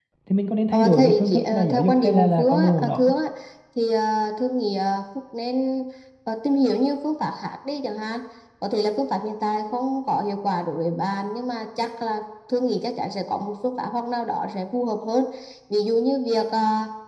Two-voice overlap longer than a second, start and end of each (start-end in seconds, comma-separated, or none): 0.7-3.1